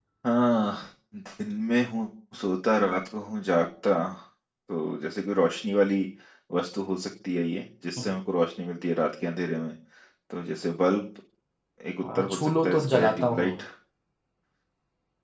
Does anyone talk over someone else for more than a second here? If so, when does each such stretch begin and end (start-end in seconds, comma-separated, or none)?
12.2-13.5